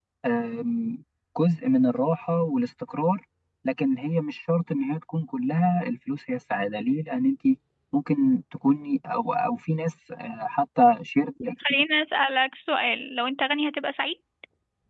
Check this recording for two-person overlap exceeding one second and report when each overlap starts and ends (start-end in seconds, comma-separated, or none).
none